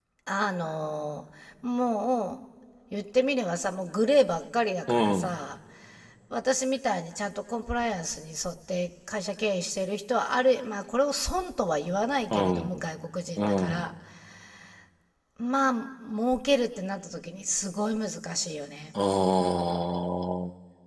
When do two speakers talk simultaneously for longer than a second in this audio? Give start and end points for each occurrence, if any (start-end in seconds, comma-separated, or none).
none